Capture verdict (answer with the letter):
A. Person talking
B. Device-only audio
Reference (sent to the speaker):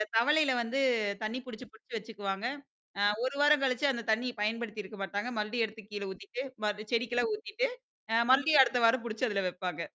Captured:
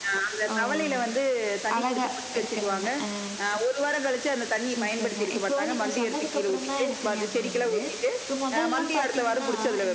A